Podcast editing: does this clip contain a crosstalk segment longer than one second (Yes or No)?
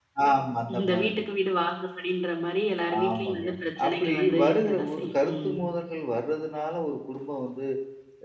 Yes